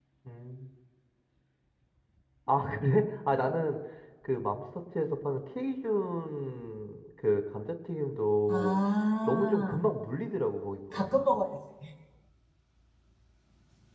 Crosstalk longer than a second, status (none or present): none